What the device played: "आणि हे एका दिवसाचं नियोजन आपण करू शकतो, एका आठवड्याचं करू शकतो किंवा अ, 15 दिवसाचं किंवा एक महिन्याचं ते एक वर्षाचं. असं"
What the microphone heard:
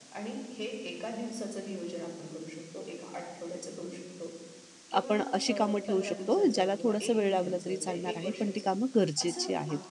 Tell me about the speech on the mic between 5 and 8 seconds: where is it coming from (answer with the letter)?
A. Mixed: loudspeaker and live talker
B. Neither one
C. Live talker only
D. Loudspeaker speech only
A